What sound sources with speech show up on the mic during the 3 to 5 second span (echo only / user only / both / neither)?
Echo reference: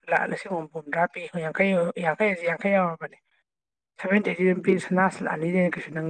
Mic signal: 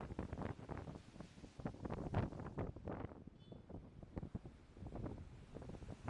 neither